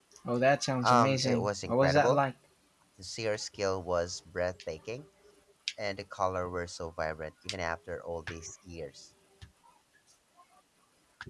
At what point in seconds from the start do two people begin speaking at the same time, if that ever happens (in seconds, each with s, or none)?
0.8 s